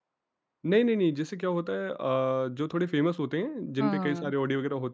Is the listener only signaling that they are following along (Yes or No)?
Yes